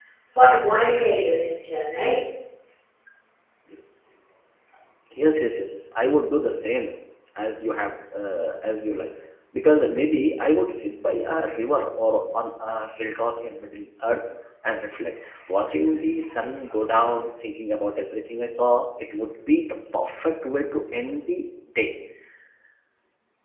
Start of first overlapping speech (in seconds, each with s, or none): none